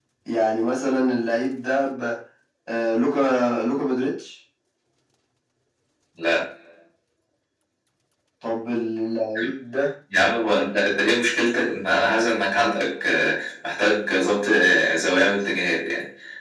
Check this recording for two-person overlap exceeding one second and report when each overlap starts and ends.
none

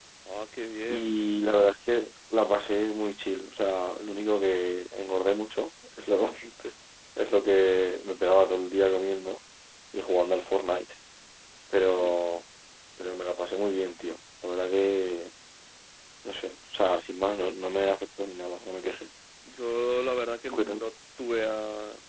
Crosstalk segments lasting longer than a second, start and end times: none

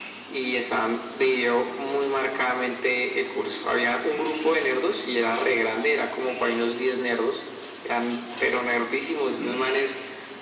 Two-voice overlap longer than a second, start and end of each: none

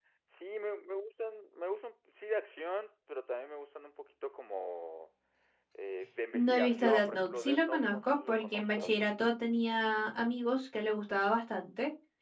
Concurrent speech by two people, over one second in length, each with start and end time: 6.3-9.0

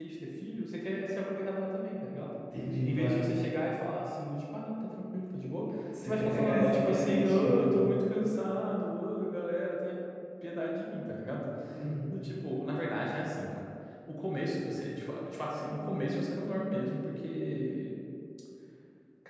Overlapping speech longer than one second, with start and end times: 6.0-7.7

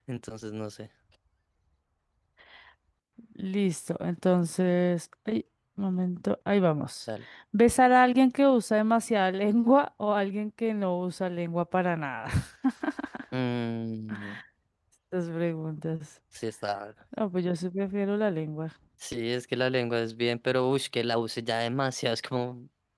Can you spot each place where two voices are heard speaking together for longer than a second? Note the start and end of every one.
none

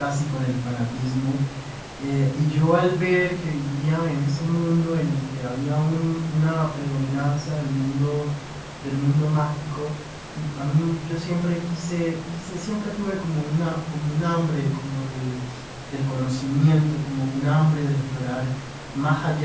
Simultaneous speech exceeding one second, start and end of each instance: none

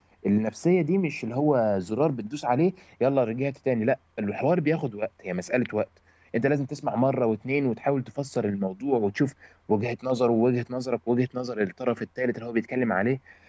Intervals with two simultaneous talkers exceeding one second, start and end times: none

